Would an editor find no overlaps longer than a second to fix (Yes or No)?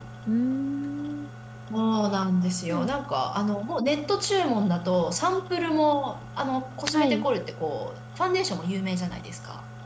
Yes